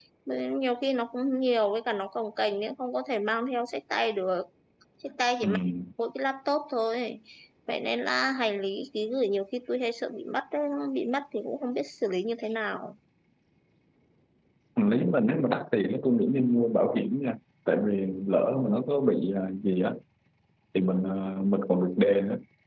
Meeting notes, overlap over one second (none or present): none